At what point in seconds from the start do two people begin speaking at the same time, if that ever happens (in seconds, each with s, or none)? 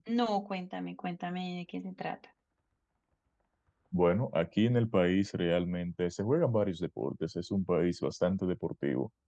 none